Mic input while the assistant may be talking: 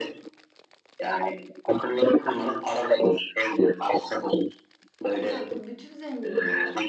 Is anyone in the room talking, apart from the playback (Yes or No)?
Yes